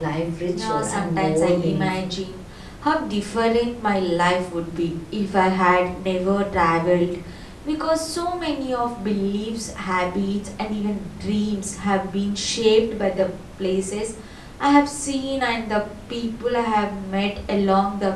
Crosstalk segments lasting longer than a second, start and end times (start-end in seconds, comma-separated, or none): 0.5-2.1